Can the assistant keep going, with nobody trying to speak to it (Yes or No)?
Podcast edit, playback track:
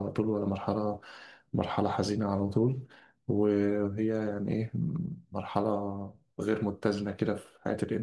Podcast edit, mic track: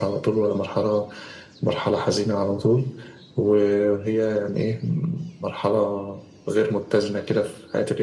Yes